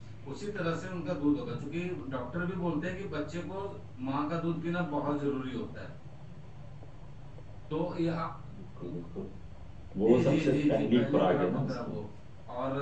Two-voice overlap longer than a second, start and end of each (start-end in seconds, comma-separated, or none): 10.1-11.9